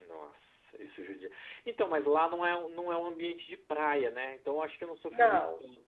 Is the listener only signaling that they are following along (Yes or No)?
Yes